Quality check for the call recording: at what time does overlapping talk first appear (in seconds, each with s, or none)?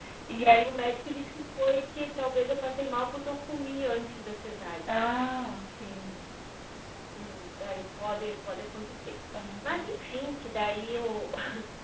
none